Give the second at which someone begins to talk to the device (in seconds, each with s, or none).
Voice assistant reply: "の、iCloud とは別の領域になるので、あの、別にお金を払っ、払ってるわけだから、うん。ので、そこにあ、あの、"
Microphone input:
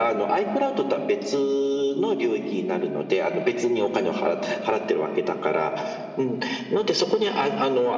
none